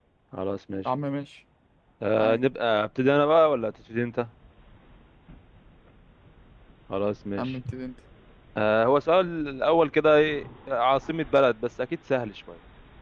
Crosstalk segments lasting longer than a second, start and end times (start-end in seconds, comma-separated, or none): none